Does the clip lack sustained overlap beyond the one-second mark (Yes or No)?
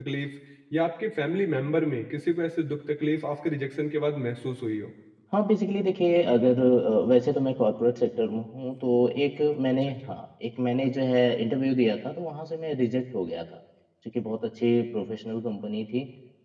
Yes